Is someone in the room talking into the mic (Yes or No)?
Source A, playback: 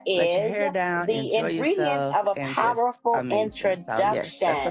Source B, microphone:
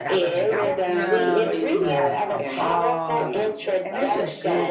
Yes